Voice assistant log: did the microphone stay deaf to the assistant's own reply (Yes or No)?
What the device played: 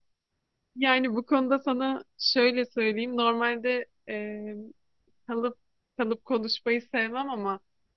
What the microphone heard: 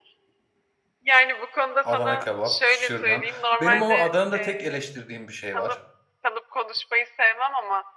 No